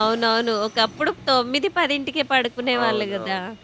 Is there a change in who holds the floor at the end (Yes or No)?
Yes